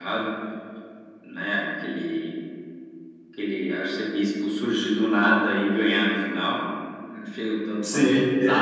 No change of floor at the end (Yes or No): No